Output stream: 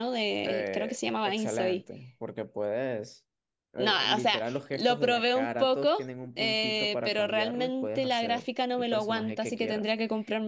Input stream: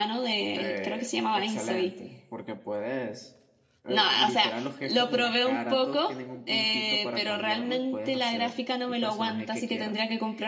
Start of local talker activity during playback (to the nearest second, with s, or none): none